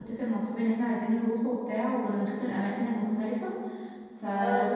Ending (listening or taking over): listening